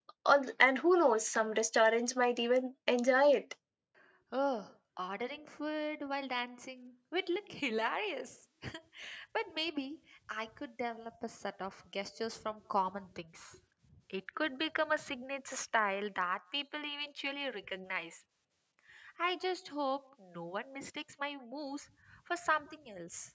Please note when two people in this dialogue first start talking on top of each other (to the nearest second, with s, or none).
none